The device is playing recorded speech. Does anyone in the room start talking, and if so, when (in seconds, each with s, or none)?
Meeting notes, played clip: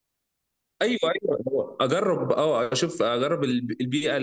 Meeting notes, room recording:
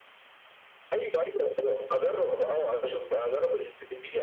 none